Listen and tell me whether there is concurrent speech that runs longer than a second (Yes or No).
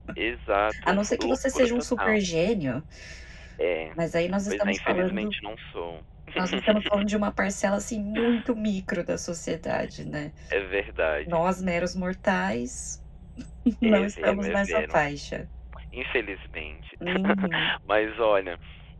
Yes